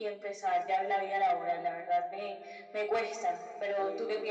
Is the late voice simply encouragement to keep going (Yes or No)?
No